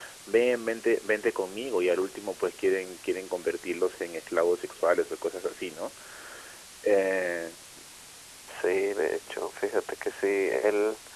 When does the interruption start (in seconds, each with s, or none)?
none